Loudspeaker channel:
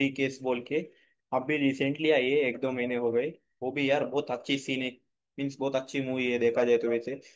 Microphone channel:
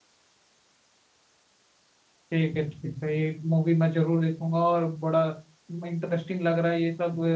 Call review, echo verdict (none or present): none